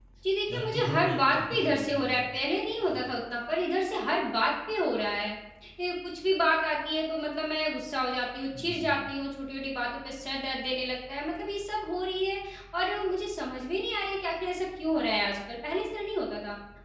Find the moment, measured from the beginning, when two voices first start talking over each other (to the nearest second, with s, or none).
1 s